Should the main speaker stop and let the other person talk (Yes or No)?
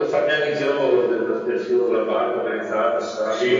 Yes